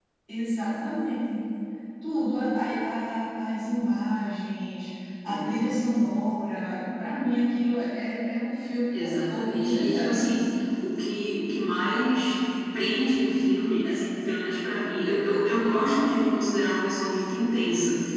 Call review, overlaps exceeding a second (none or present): present